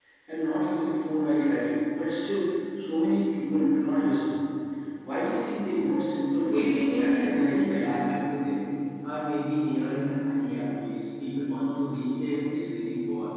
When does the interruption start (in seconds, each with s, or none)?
6.3 s